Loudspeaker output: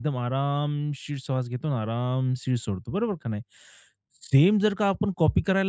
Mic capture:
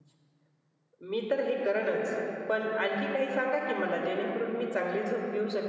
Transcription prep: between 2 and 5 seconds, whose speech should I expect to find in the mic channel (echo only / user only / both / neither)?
user only